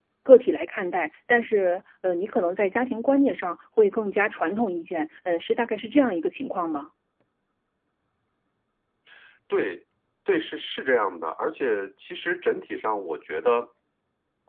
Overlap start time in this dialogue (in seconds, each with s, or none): none